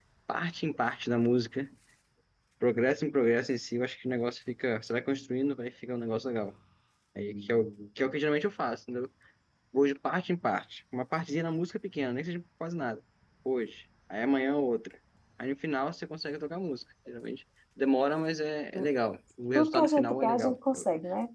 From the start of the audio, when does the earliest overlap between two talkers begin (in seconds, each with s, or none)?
19.6 s